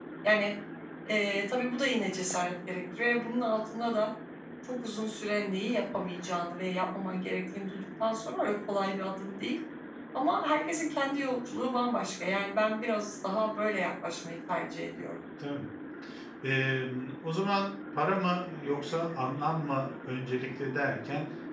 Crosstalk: none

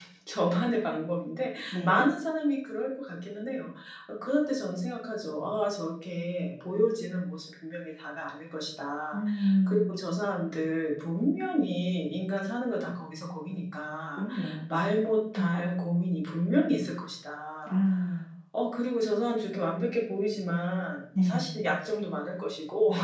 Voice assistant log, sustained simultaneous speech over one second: none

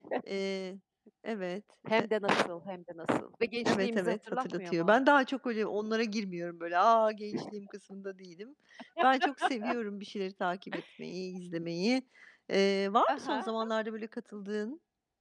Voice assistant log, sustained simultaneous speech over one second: present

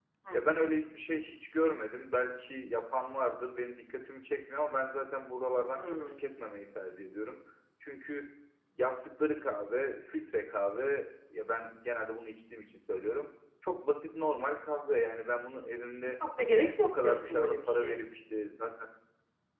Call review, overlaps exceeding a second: present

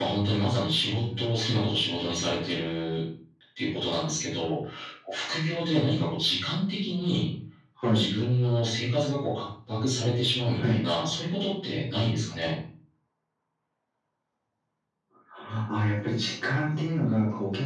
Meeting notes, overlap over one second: none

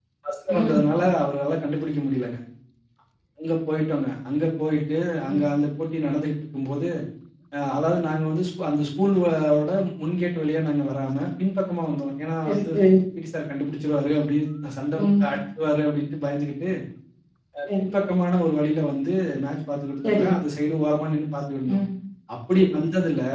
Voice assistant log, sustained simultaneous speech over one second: none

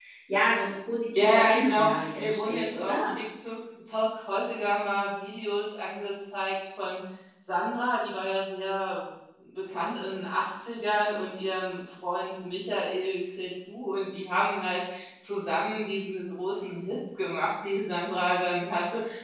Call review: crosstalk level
present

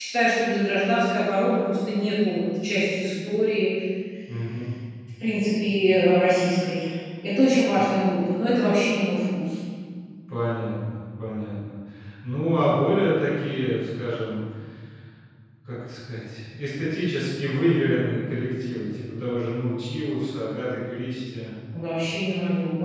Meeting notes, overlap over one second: none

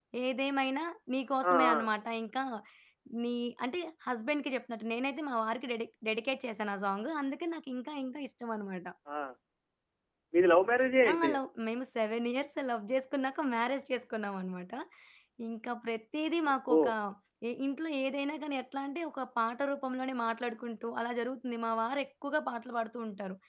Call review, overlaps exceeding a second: none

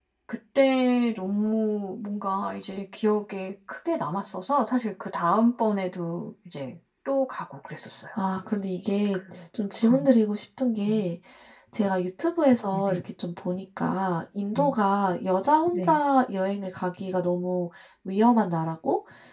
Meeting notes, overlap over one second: none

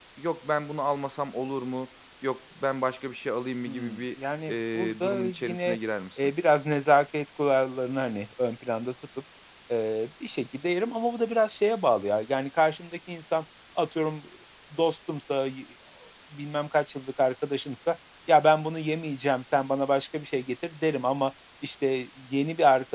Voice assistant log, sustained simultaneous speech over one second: present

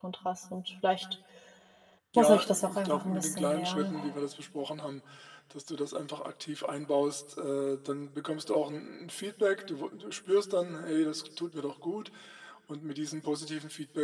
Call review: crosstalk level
present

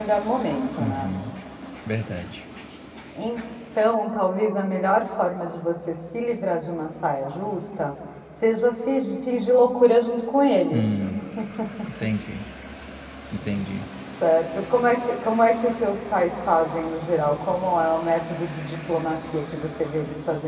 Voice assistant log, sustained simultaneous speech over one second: none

